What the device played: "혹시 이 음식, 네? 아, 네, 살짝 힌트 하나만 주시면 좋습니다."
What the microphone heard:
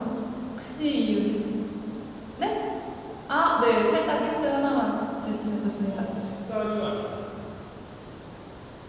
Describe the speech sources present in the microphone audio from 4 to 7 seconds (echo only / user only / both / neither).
both